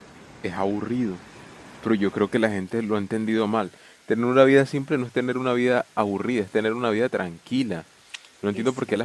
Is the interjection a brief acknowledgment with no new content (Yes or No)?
Yes